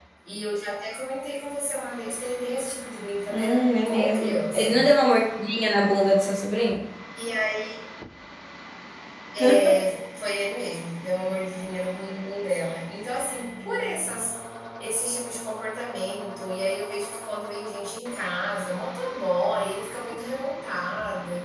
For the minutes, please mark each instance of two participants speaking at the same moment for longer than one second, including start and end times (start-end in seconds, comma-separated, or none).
3.3-4.8